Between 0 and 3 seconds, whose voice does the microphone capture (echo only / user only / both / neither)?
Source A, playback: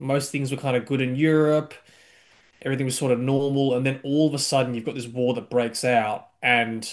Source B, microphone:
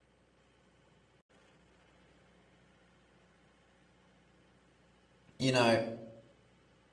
neither